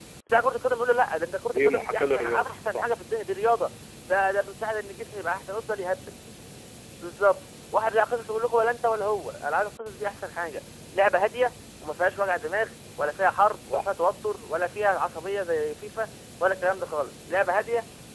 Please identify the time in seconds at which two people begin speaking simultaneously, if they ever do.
1.5 s

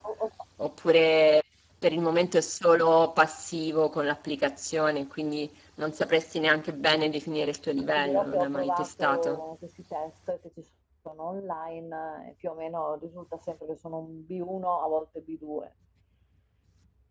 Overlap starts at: 8.0 s

